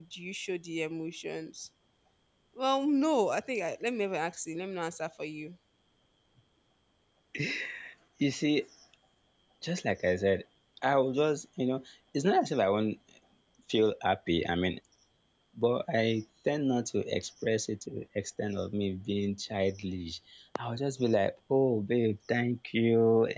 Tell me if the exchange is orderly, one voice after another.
Yes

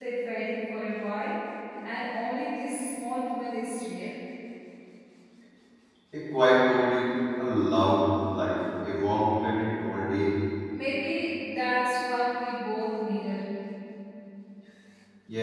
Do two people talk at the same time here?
No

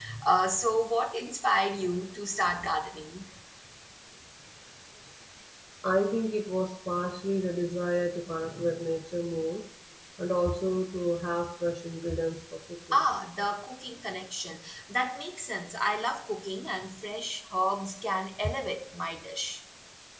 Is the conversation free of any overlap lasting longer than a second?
Yes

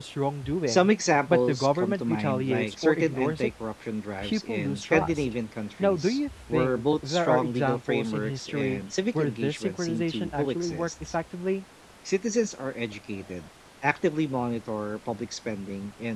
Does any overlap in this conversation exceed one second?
Yes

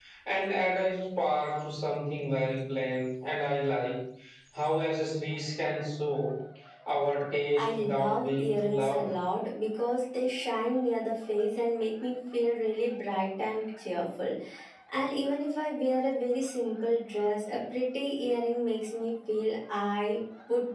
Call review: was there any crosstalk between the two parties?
Yes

